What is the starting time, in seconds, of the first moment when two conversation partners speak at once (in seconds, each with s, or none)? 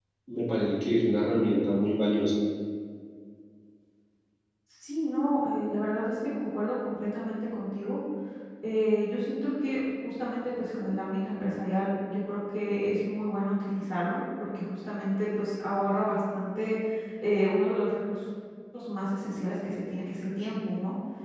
none